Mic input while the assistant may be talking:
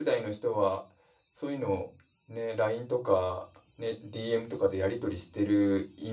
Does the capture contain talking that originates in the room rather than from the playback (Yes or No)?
Yes